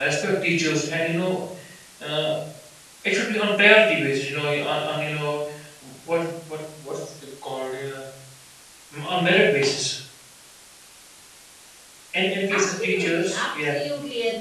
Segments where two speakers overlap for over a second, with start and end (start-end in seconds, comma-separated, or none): 12.5-13.8